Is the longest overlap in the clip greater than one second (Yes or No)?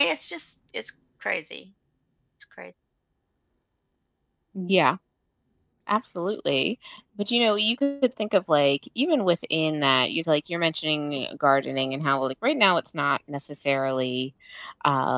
No